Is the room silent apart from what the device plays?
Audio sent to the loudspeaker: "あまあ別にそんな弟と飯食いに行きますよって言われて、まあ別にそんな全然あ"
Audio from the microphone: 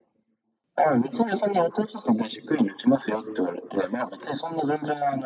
Yes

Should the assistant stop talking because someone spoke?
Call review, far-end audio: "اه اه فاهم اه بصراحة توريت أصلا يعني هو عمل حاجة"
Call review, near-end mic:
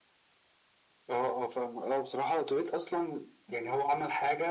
No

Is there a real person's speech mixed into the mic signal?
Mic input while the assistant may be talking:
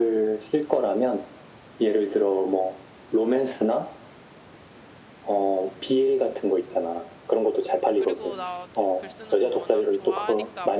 Yes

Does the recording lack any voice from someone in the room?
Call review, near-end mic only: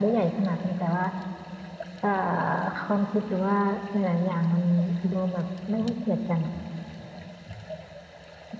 Yes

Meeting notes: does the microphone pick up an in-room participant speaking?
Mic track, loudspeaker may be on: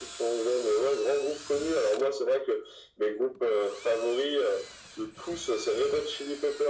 No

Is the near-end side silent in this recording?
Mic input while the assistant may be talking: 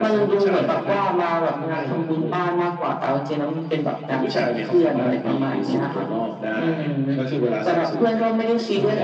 Yes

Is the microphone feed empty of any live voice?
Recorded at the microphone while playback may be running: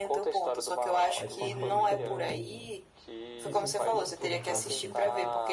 No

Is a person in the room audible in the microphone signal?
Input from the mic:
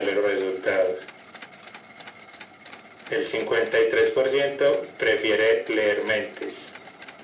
No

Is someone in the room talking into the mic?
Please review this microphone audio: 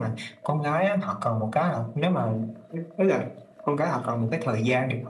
No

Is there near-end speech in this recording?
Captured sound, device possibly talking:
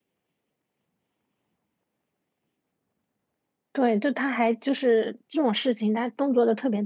Yes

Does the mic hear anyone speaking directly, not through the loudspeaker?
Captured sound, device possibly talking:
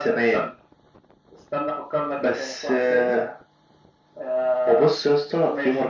No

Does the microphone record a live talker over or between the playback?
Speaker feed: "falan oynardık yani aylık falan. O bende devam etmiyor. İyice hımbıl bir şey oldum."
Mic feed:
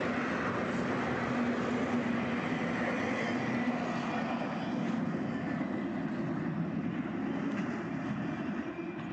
No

